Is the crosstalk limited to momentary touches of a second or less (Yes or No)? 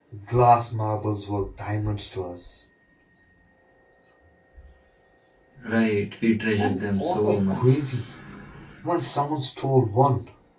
No